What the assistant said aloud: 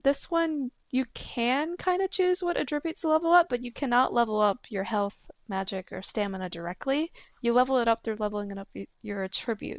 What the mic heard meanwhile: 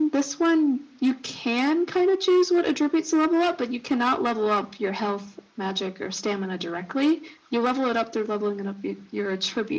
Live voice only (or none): none